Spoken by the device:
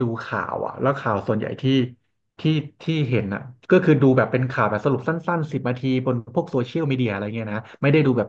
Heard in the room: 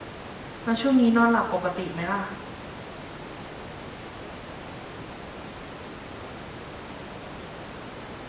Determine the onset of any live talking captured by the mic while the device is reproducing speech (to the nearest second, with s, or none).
1 s